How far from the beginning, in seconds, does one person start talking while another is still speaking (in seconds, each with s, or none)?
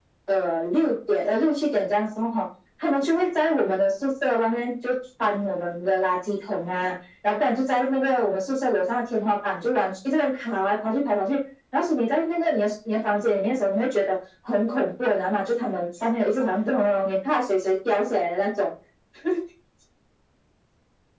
none